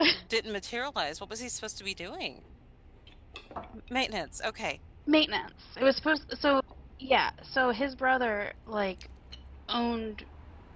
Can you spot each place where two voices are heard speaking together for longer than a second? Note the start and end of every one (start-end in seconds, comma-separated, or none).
none